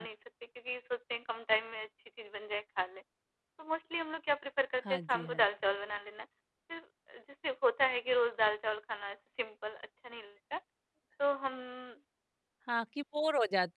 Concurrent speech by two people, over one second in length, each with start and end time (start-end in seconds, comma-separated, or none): none